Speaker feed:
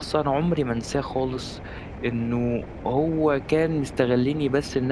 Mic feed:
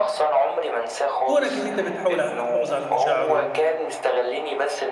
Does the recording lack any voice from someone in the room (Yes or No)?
No